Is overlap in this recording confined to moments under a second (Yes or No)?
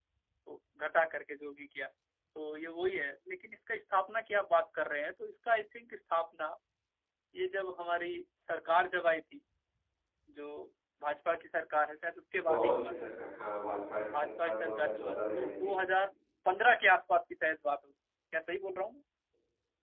No